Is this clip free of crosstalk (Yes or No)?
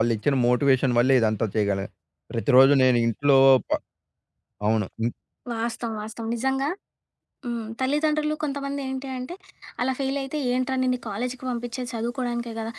Yes